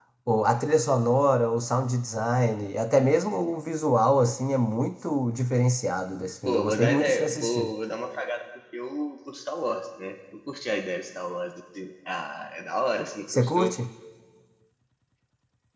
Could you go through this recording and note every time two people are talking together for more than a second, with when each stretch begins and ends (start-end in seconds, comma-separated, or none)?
6.5-7.7